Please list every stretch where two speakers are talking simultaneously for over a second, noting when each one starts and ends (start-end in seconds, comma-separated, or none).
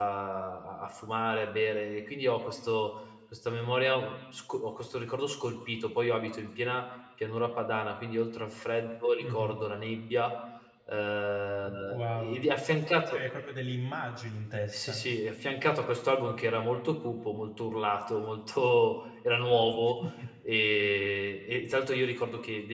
none